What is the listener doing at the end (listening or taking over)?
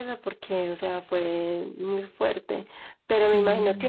listening